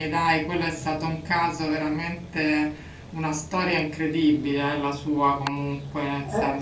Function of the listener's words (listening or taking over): taking over